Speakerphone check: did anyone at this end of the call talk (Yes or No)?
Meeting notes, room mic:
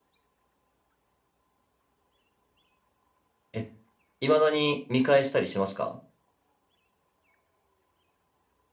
Yes